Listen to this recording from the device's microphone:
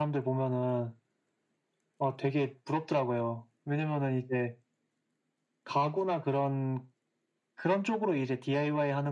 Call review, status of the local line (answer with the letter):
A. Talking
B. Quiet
B